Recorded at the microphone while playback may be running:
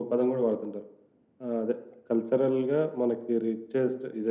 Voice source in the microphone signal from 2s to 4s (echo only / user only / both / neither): echo only